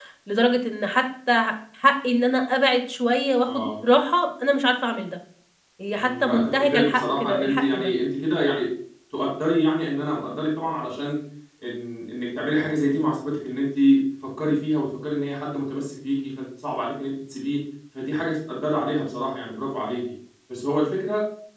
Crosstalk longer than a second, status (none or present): present